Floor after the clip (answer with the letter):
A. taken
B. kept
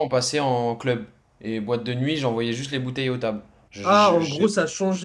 A